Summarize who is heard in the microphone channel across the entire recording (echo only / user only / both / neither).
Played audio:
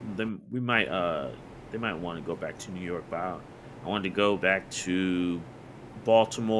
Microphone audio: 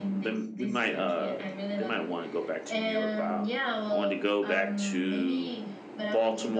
both